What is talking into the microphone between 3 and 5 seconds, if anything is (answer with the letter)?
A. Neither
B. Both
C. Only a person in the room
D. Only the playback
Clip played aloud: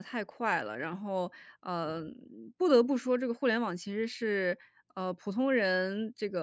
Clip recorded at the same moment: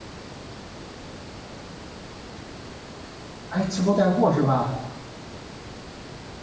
C